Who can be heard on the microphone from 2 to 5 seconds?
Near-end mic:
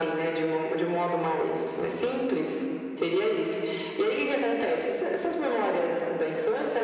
echo only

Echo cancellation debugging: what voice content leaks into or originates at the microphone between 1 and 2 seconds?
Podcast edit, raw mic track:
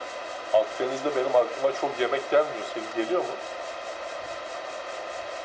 echo only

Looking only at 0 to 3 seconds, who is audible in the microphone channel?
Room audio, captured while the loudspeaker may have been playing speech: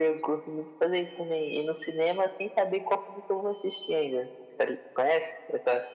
echo only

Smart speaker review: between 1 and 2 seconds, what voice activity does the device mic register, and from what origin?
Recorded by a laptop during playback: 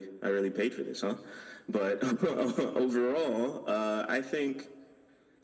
echo only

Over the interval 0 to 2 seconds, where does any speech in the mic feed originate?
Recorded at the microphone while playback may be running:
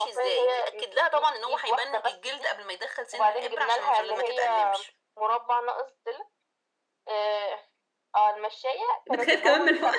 echo only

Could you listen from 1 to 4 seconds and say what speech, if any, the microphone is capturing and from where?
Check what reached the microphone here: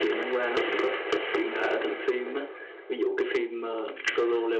echo only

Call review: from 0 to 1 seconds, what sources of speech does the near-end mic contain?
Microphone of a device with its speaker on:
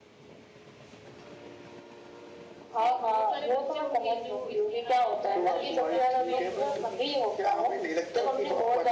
neither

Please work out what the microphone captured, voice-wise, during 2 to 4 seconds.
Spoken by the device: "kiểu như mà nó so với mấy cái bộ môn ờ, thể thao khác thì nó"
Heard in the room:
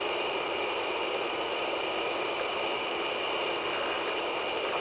neither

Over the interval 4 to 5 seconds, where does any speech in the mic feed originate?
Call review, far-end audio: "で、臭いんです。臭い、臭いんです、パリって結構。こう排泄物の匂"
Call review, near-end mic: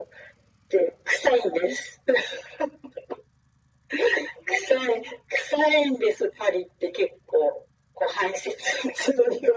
echo only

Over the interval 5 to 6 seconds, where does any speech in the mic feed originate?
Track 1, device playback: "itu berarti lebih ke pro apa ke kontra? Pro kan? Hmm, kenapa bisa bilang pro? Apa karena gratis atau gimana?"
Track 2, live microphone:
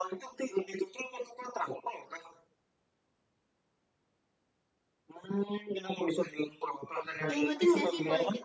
echo only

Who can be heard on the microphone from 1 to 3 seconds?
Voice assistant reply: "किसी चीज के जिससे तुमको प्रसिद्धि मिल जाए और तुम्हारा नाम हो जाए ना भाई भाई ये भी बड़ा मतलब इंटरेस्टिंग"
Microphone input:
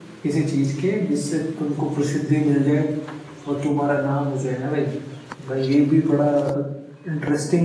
echo only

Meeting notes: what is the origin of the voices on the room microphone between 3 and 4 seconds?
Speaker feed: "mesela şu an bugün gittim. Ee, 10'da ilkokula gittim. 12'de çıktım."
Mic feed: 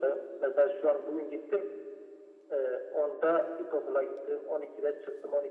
echo only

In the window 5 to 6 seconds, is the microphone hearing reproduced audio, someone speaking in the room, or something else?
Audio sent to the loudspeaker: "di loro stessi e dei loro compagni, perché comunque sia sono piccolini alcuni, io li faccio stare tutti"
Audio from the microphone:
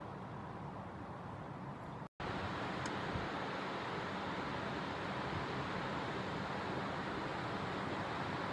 neither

